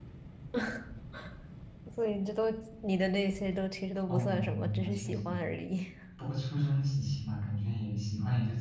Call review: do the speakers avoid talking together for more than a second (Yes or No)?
No